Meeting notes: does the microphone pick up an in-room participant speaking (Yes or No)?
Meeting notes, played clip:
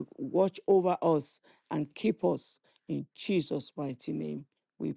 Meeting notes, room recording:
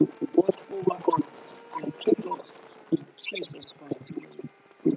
No